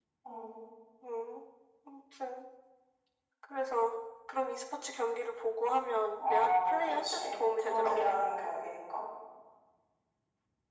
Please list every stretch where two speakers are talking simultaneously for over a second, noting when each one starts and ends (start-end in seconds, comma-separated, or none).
6.2-8.0